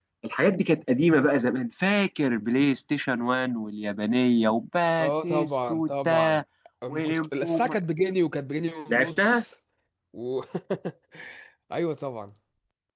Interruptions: present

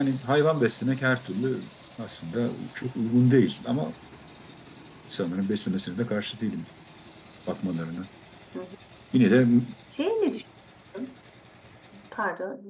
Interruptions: none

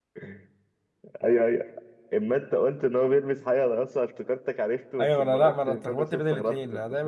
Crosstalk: present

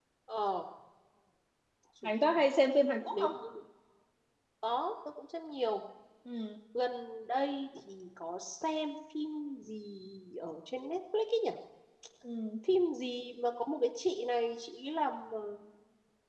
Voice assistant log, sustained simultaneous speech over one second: none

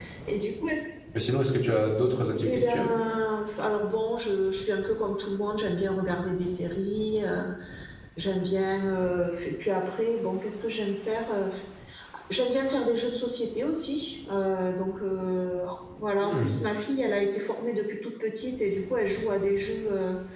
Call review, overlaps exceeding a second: none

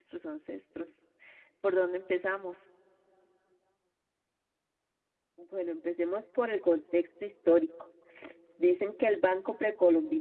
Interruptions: none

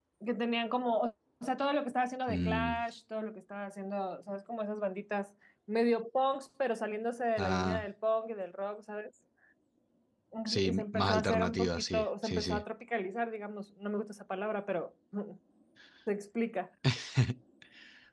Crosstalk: present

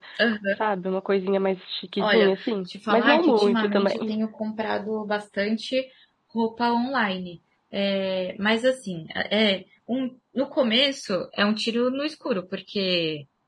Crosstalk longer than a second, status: present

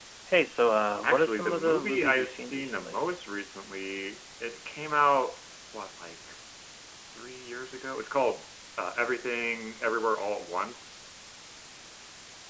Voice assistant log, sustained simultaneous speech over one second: present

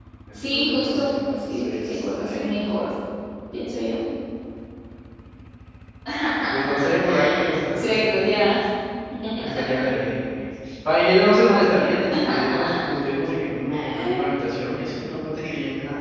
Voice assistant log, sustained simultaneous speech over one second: present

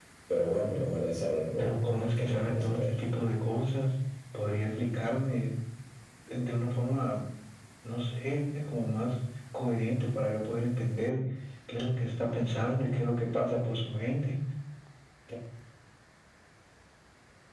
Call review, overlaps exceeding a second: present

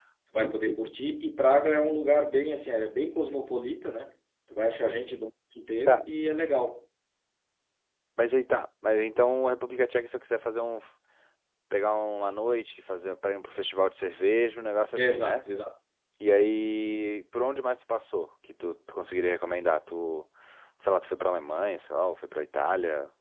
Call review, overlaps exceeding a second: none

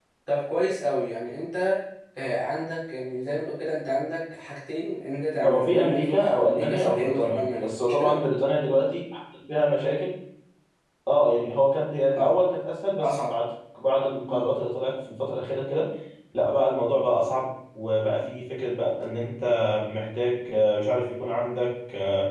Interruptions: present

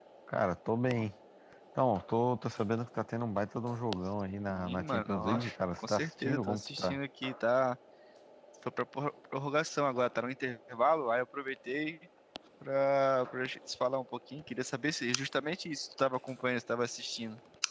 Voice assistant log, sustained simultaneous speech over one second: present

